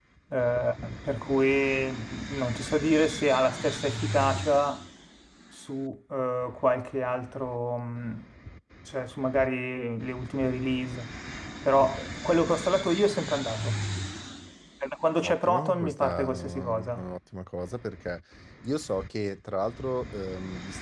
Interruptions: present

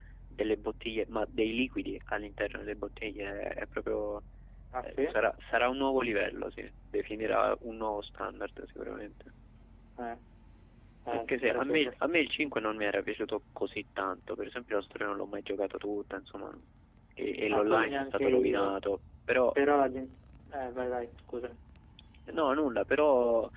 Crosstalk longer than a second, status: present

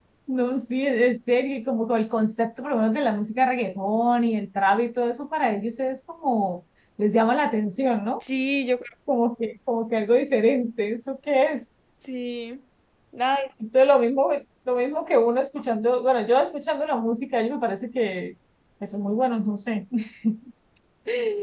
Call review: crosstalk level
none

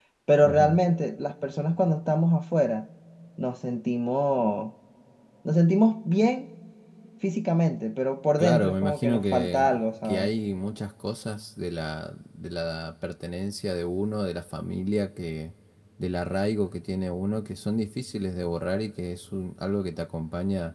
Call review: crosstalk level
present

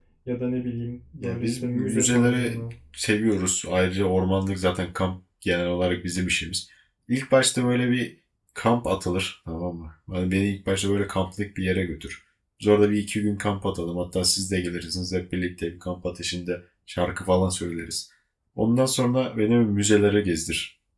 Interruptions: present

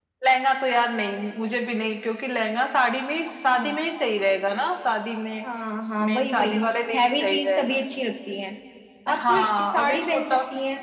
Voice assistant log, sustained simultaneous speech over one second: present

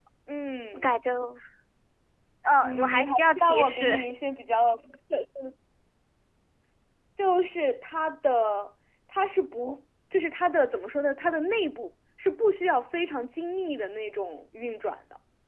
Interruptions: present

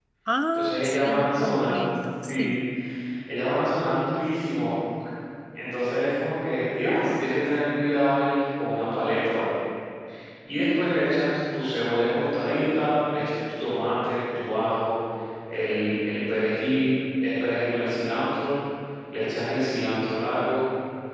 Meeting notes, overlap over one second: present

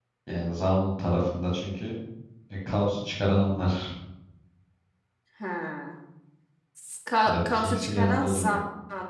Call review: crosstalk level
present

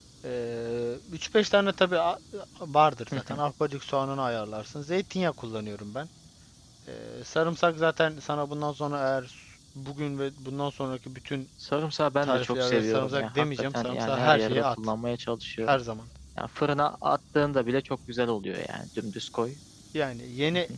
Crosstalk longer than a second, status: present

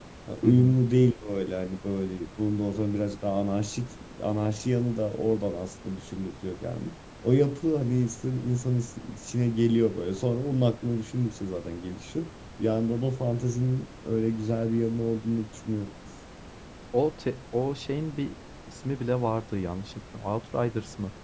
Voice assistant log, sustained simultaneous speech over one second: none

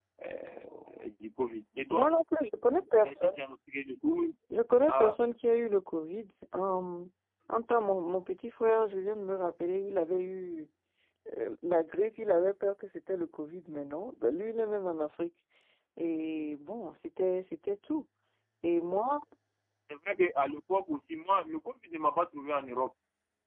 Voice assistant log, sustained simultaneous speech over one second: none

